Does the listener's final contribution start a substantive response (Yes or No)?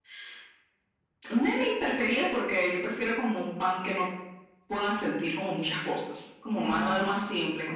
No